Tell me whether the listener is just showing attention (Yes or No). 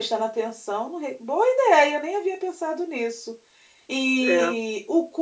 Yes